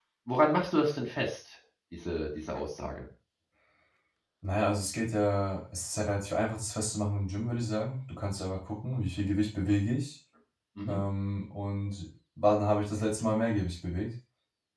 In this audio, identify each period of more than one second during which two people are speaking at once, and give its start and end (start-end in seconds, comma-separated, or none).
none